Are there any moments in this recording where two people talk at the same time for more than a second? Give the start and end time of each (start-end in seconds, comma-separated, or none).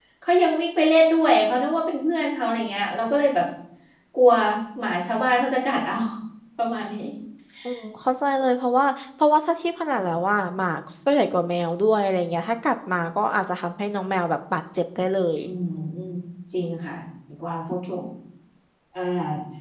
none